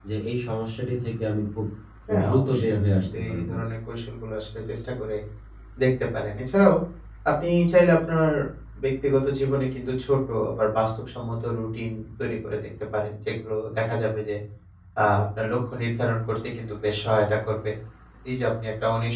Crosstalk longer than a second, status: present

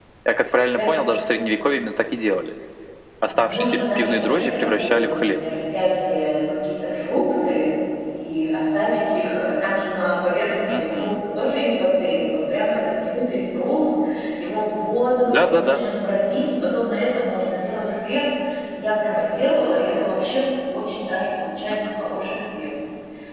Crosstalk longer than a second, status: present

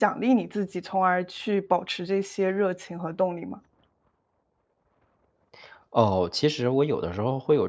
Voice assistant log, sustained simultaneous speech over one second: none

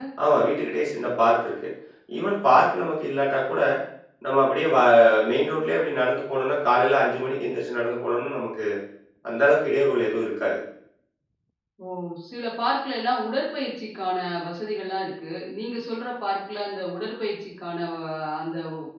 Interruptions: none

